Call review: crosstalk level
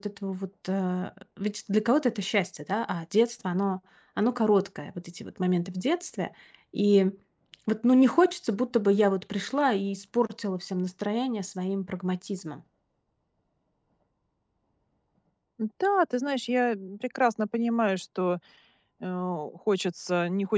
none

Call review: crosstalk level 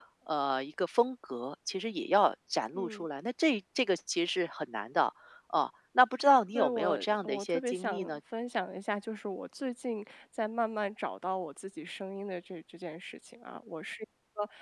present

